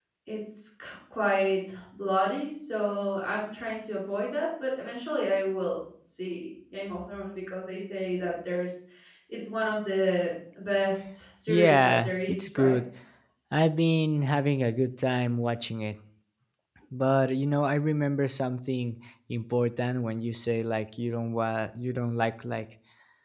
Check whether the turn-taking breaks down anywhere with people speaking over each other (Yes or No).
Yes